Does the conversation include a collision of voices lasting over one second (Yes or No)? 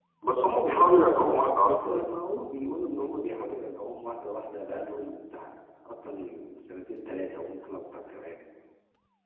No